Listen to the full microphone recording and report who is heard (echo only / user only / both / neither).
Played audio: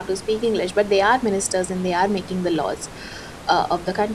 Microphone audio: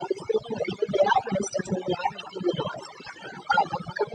echo only